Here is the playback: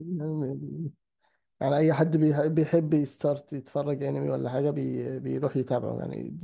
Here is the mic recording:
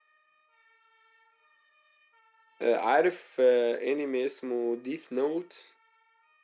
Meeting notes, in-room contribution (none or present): present